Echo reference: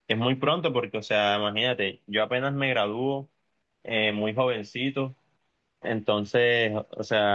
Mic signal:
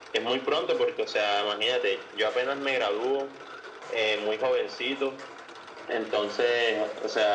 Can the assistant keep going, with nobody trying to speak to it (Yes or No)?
Yes